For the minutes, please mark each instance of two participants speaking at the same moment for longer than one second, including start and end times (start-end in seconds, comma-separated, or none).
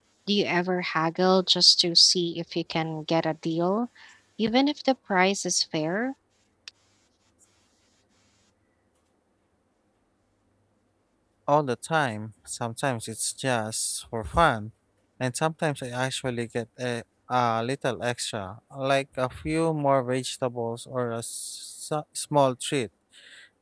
none